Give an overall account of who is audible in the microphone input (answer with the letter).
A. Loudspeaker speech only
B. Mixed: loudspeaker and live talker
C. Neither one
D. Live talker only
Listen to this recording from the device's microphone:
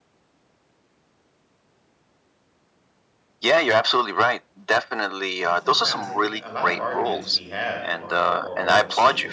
B